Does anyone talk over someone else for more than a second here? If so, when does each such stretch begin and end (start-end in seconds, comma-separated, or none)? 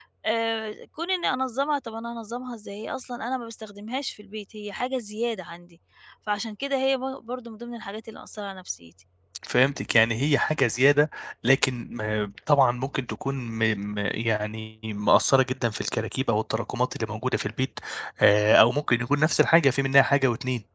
none